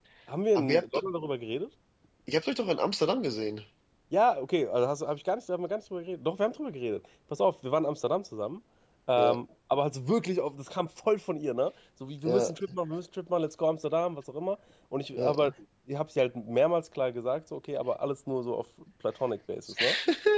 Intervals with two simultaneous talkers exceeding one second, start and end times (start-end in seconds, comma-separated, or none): none